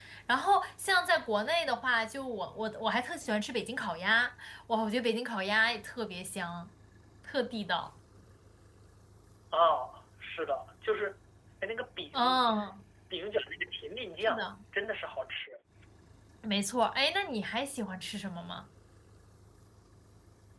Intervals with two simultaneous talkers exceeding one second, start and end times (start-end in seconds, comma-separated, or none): none